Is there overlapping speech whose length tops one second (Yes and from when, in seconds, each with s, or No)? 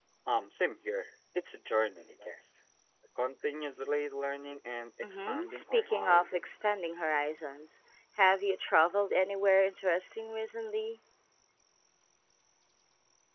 Yes, from 5.0 s